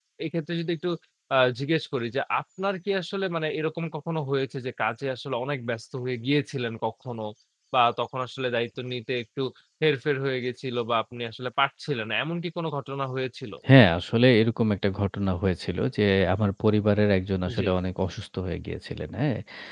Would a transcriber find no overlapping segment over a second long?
Yes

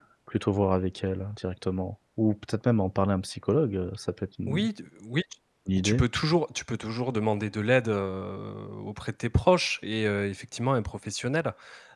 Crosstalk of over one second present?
No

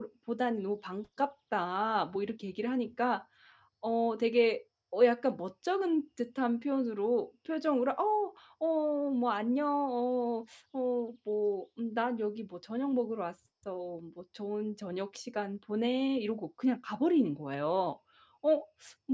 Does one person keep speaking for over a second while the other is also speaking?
No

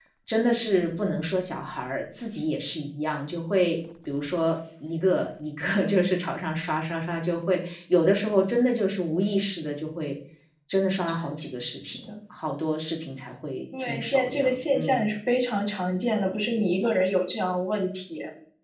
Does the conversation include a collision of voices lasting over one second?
Yes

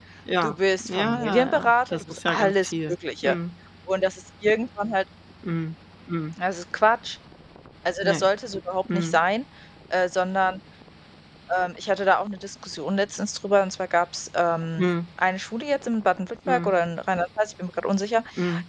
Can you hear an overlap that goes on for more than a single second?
Yes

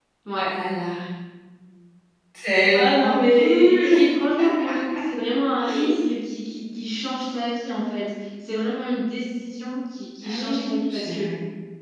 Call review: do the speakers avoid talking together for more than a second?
No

